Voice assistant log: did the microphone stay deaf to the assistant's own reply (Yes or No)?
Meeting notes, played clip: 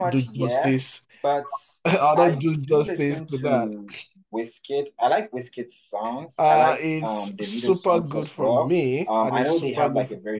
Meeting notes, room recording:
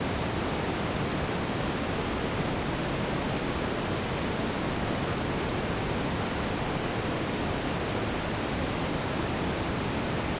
Yes